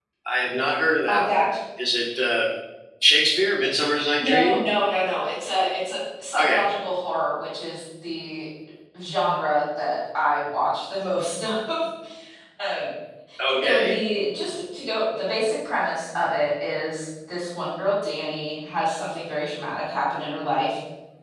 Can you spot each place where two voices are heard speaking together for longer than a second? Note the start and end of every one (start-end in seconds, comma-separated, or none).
none